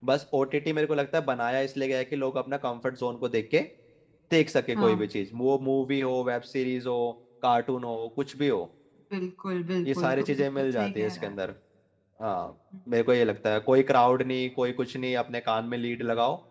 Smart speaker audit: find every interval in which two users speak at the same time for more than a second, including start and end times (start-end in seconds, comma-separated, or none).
9.9-11.4